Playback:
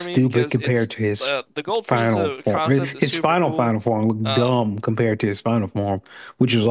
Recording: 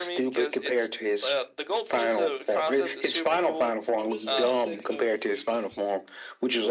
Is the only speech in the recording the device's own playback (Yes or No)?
No